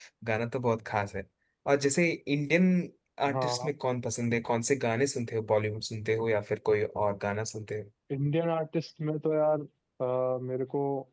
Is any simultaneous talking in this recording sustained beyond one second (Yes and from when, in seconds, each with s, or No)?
No